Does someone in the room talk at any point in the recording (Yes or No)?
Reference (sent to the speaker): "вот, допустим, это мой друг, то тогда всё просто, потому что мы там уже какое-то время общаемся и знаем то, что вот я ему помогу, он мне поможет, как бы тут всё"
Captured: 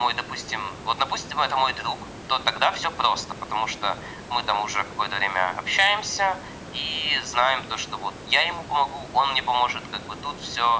No